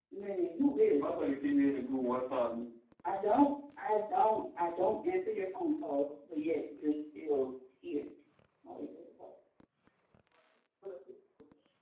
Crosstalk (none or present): none